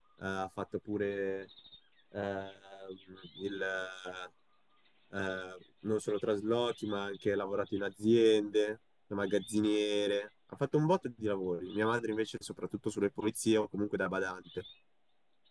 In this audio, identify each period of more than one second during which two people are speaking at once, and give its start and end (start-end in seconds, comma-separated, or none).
none